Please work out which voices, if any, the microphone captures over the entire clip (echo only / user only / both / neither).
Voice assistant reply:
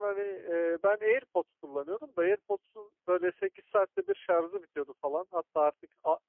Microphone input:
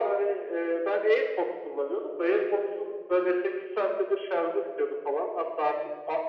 echo only